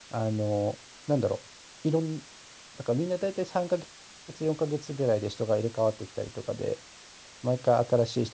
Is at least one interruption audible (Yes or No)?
No